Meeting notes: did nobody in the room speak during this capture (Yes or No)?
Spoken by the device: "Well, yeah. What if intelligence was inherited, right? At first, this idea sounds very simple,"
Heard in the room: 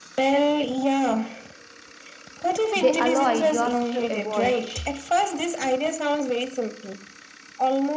No